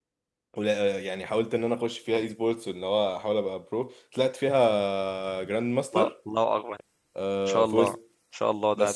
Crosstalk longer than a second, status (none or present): none